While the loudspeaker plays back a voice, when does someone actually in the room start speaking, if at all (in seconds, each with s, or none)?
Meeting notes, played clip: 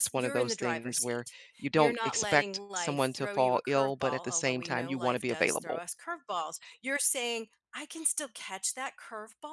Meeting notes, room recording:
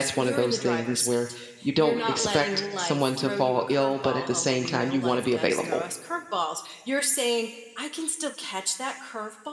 none